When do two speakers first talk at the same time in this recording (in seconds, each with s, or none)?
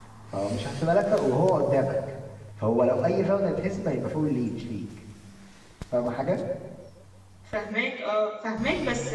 none